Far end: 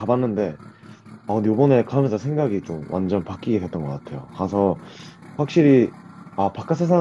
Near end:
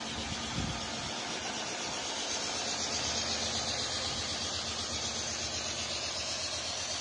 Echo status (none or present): none